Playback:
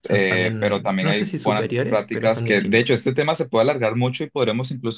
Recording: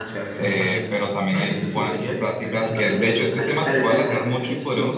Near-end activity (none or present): present